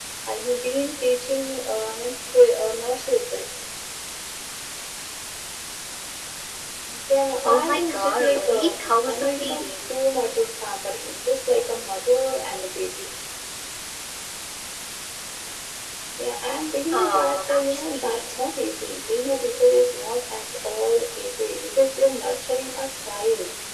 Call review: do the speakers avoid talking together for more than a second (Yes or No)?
No